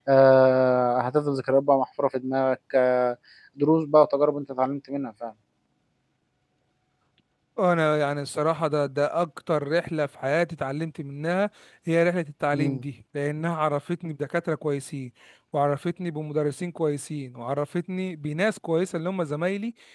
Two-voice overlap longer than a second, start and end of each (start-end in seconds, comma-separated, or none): none